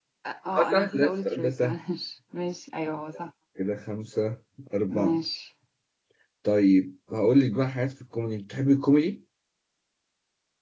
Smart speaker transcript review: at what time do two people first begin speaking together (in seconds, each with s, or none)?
0.6 s